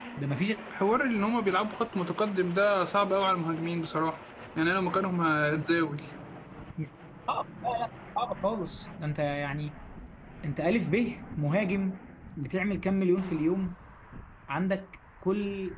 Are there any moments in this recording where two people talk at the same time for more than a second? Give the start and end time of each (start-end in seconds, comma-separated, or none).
none